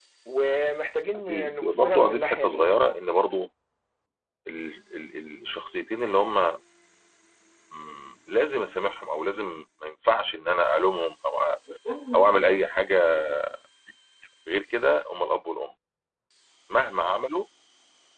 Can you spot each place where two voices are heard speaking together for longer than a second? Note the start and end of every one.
1.1-2.8

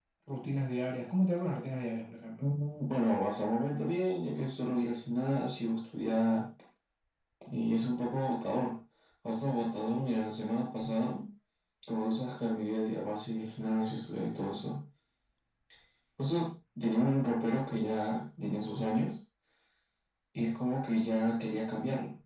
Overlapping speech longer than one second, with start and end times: none

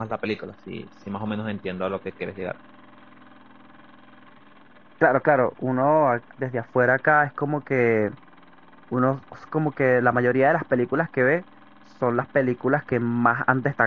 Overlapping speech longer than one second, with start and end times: none

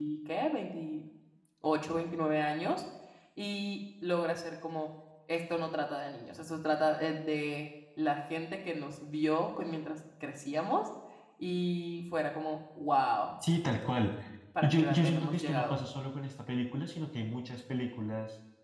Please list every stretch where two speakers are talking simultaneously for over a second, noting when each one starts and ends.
14.6-15.8

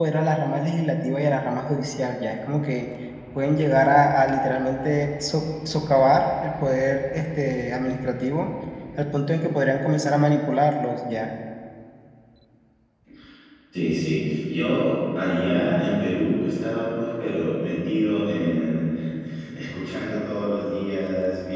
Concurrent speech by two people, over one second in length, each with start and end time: none

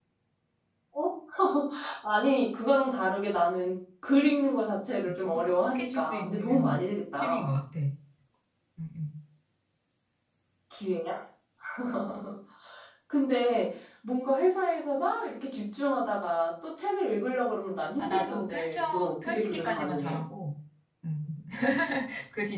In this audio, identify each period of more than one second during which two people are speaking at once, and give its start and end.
5.1-6.8, 18.0-20.2

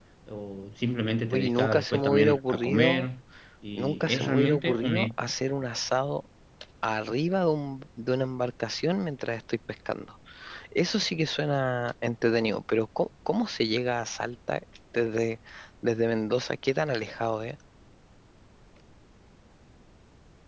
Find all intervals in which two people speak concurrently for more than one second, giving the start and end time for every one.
1.3-3.1, 3.8-5.0

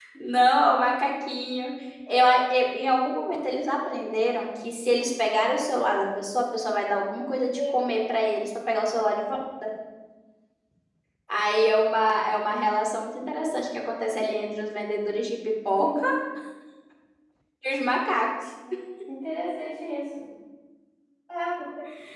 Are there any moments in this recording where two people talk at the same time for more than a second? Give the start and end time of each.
none

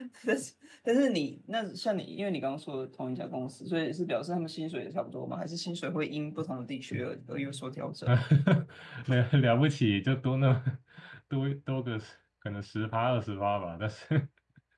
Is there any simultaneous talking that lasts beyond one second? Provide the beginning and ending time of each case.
none

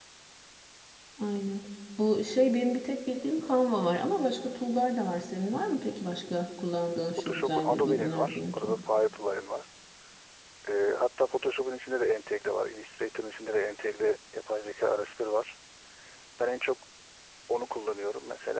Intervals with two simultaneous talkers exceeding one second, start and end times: 7.2-8.8

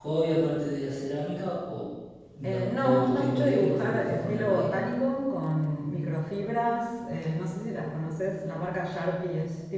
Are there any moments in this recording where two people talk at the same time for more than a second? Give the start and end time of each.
2.4-4.7

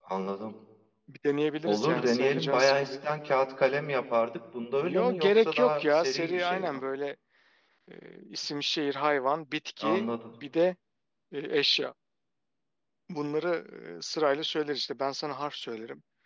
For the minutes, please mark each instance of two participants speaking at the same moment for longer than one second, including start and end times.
1.6-3.0, 4.8-6.8

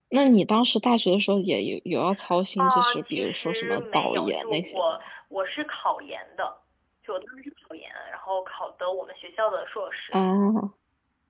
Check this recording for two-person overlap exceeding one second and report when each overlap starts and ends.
2.6-4.8

